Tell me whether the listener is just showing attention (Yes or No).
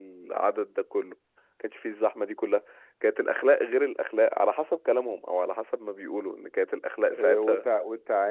No